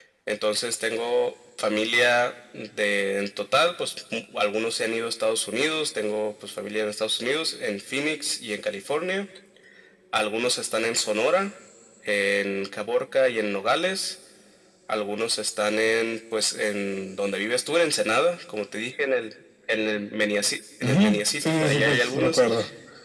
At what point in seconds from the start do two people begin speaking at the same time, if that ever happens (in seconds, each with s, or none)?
20.8 s